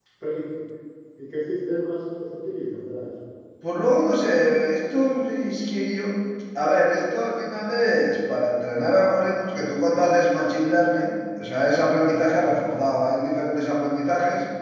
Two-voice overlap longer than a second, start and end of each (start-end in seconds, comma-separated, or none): none